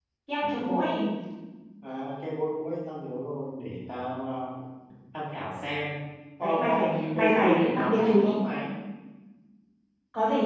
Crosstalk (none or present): present